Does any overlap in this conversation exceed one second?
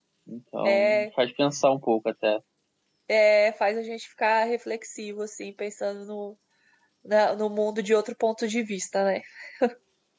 No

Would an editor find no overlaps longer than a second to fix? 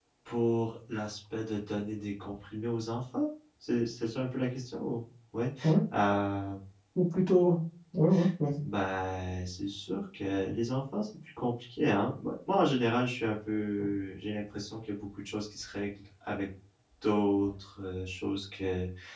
Yes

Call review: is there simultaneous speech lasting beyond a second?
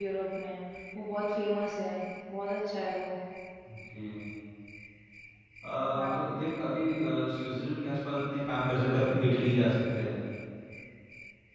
No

